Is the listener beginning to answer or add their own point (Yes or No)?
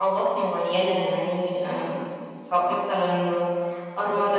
Yes